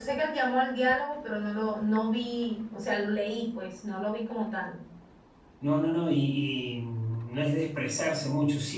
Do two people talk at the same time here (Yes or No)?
No